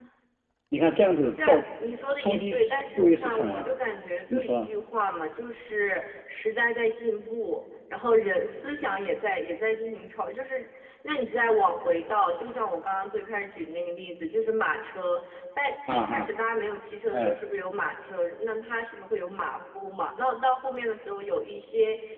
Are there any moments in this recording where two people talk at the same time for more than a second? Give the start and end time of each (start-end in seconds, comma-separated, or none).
2.2-3.7